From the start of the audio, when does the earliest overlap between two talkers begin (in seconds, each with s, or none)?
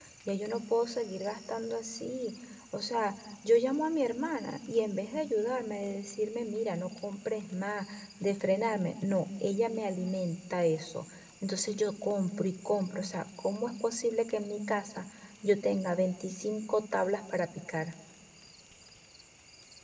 none